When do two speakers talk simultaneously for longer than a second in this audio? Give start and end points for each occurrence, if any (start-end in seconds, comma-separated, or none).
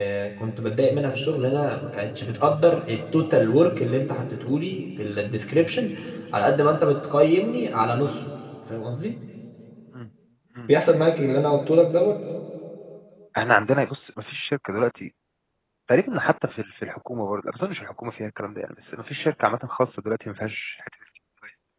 none